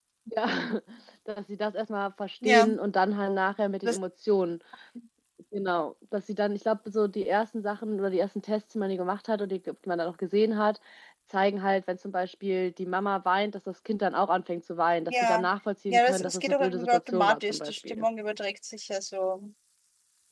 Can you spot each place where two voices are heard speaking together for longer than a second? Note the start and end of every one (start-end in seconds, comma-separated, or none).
15.9-18.1